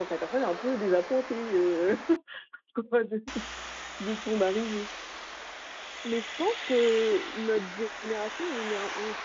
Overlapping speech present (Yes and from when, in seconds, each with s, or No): No